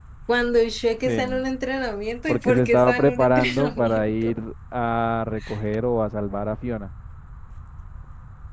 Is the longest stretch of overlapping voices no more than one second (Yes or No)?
No